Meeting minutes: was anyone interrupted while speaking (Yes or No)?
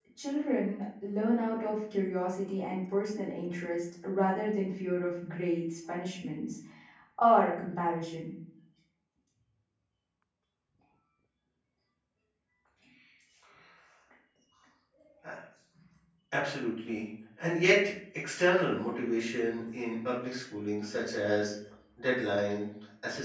No